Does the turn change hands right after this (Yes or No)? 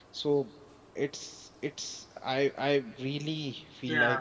No